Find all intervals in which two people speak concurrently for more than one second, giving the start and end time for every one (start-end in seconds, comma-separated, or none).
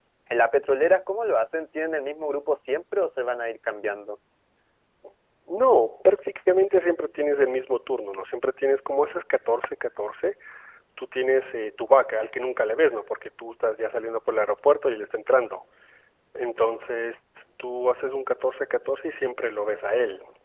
none